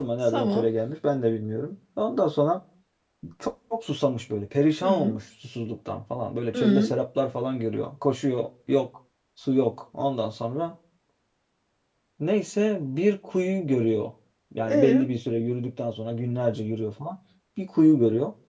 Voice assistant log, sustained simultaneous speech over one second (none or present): none